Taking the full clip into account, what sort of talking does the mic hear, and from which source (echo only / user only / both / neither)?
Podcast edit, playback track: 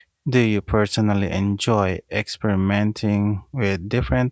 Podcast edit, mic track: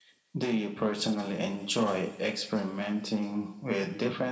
echo only